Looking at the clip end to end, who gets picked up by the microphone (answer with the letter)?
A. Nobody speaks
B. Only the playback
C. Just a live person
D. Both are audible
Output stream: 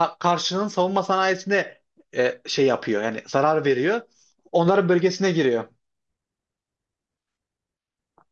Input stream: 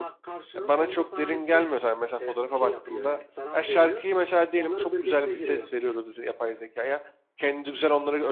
D